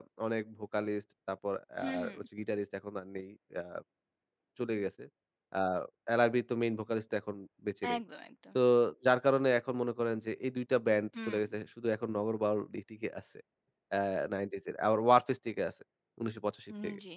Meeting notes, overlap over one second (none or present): none